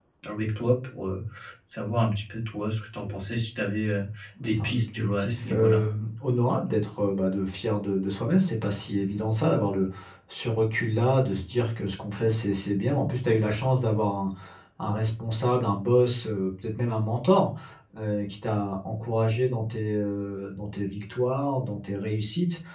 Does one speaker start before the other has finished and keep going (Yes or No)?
Yes